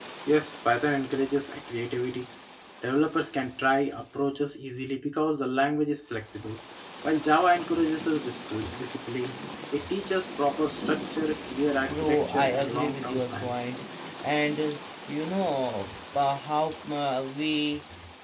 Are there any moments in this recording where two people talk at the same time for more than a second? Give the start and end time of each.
11.8-13.6

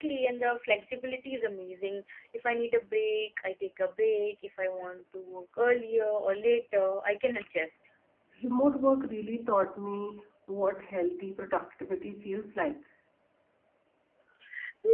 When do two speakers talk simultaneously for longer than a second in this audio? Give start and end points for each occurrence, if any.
none

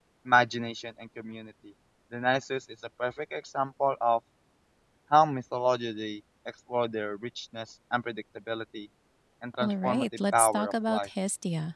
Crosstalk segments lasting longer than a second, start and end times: 9.6-11.1

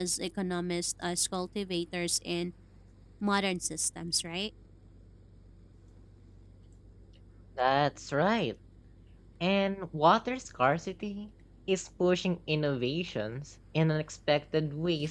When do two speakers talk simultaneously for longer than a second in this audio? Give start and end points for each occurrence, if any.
none

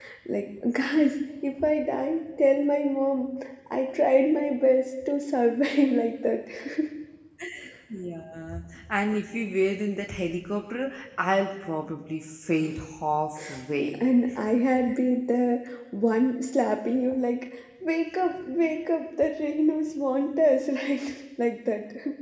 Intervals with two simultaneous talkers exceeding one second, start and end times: none

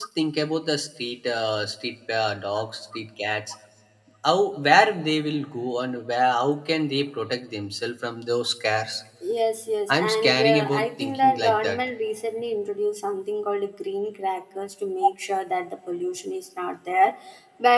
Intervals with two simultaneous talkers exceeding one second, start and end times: 9.9-11.8

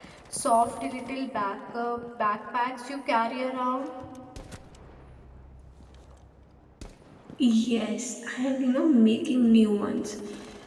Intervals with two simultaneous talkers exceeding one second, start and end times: none

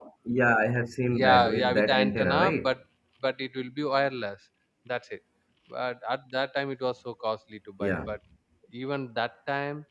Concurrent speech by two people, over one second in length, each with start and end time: 1.1-2.7

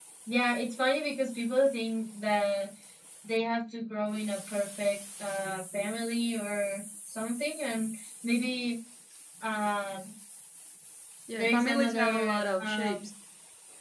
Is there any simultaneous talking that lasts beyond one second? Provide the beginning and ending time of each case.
11.4-13.1

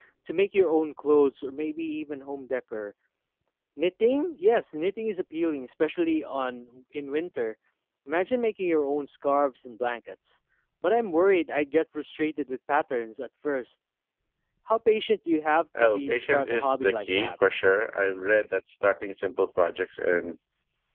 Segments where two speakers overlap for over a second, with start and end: 15.8-17.3

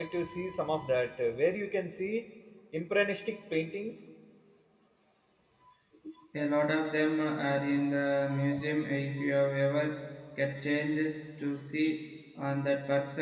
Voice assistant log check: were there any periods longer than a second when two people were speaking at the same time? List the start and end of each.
none

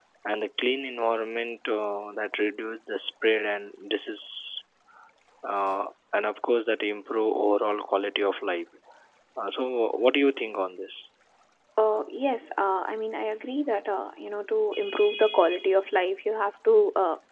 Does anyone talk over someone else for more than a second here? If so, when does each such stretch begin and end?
none

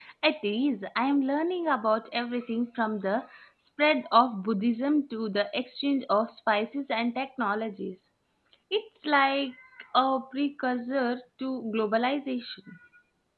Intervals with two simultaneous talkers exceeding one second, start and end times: none

